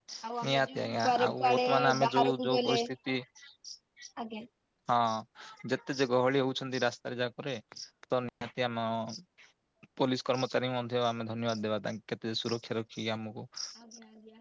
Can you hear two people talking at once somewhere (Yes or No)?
Yes